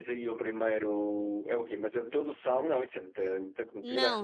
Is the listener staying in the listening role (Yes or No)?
No